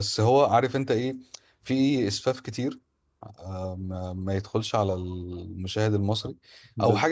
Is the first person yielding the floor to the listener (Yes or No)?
No